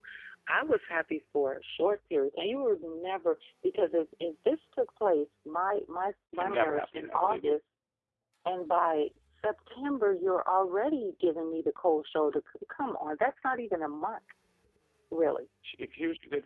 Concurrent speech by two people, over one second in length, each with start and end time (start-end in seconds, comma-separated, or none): 6.4-7.6